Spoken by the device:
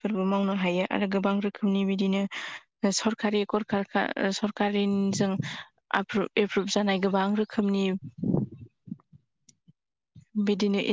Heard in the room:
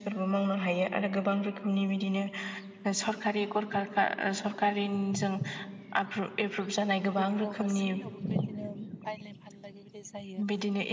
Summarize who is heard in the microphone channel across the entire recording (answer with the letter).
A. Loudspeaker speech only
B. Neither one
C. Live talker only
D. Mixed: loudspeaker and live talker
D